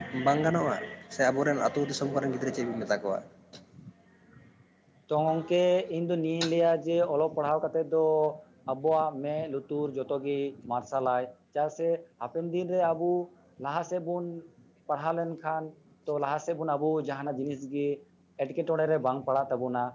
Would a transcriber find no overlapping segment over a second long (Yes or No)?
Yes